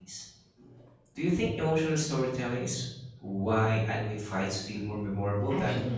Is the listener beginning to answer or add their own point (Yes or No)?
Yes